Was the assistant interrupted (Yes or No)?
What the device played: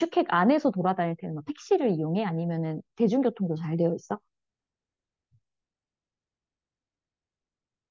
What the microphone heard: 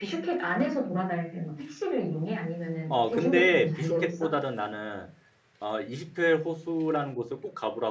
Yes